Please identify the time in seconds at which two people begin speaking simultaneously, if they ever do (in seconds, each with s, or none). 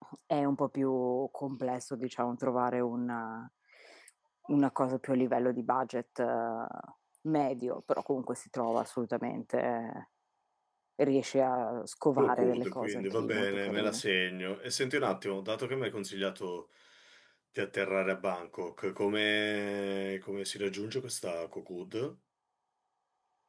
12.2 s